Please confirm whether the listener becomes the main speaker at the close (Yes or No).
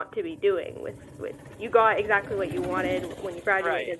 No